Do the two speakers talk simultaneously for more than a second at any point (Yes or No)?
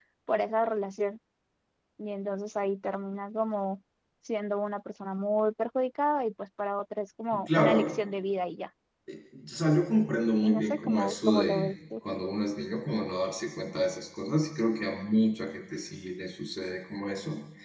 Yes